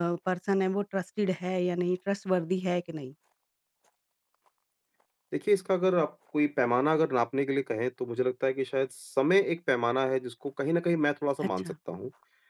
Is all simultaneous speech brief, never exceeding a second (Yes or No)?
Yes